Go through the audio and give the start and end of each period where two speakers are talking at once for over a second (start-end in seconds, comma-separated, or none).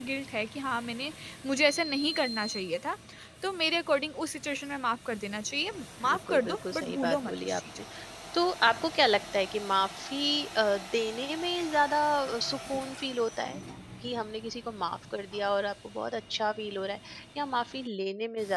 6.1-7.6